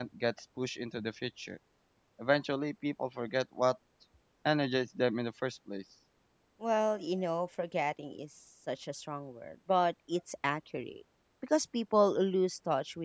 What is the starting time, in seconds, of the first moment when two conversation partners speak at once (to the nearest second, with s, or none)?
none